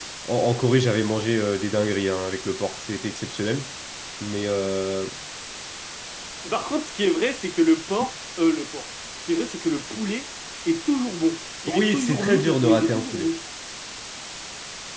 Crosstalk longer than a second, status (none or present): present